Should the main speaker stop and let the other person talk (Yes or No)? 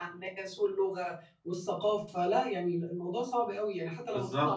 Yes